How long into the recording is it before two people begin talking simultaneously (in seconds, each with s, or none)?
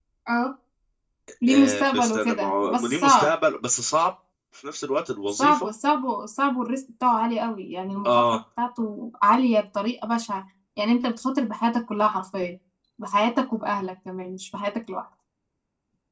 1.5 s